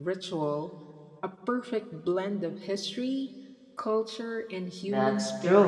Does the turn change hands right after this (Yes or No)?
Yes